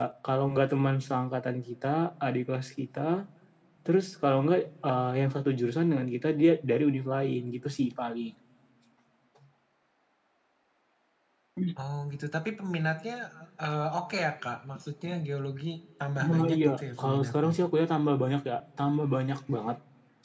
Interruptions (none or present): present